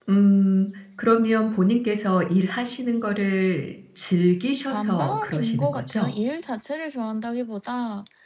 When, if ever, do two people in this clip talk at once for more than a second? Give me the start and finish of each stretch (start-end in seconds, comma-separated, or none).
4.7-6.1